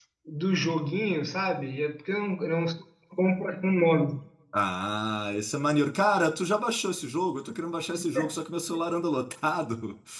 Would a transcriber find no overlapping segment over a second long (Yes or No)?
Yes